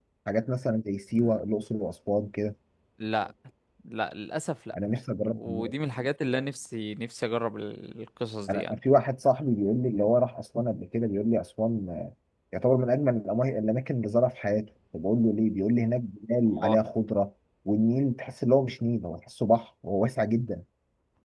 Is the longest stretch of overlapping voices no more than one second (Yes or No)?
Yes